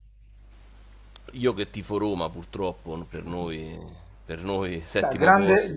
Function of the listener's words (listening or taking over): taking over